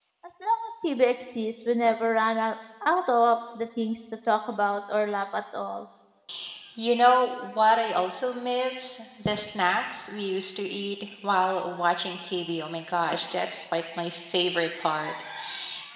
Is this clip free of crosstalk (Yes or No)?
Yes